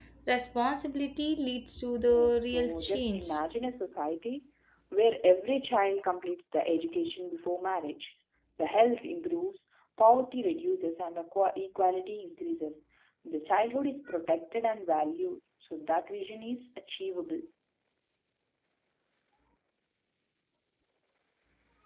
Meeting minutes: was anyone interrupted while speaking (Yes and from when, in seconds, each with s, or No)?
Yes, from 2.1 s